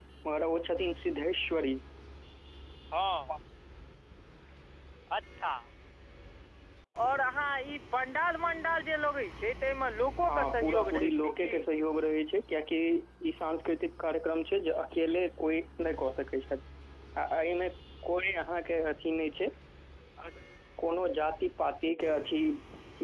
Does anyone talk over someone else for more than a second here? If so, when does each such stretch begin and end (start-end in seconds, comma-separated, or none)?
10.3-11.5